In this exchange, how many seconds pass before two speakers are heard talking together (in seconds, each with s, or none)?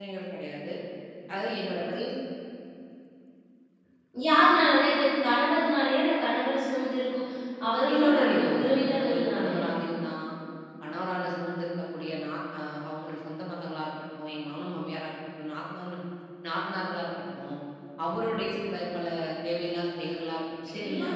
7.9 s